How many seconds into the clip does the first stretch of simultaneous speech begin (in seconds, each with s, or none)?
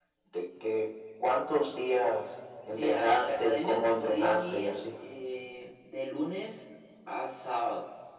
2.7 s